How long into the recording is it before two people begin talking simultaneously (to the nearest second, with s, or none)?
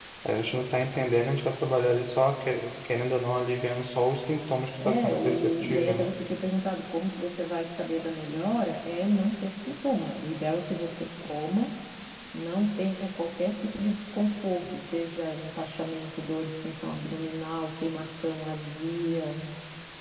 5 s